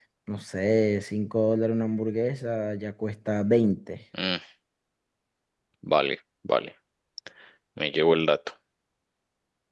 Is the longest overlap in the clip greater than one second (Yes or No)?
No